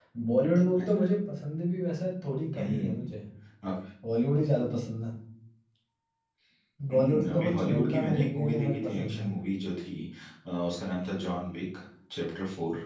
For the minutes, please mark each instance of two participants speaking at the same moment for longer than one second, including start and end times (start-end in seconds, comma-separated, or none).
6.9-9.3